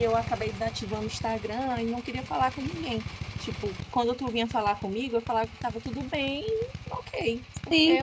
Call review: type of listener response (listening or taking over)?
taking over